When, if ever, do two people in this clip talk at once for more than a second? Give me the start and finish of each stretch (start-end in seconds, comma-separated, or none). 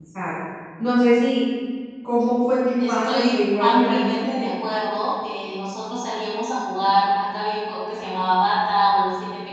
2.8-4.2